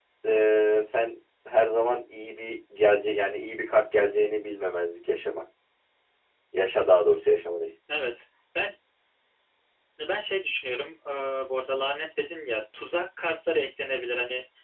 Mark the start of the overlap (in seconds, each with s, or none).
none